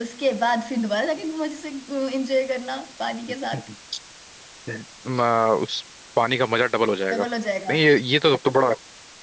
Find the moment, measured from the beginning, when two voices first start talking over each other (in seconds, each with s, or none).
none